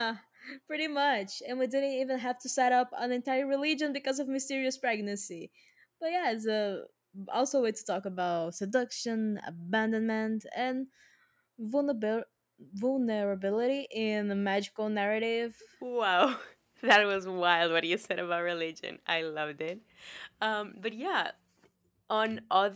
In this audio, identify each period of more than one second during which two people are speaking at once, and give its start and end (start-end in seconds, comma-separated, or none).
none